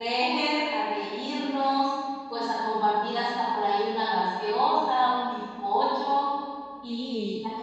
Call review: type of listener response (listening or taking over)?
listening